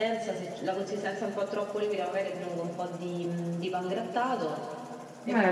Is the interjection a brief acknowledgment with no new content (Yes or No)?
Yes